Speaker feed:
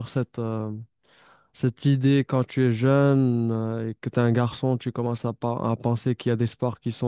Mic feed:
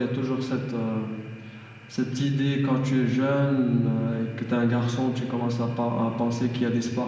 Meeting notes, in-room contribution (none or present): none